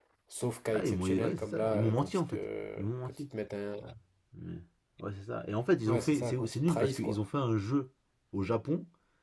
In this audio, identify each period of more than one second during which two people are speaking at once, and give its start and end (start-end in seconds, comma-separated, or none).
0.7-2.4, 5.9-7.2